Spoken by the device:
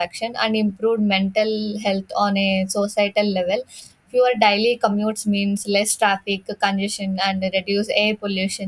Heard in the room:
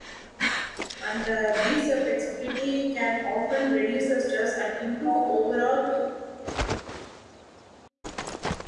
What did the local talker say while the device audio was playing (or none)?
and uh, this uh, flexibility can often reduce the stress and improve overall